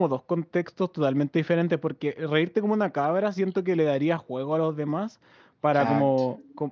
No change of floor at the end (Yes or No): Yes